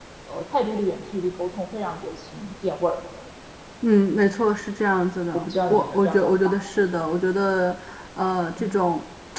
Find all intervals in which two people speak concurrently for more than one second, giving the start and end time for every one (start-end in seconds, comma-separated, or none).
5.3-6.6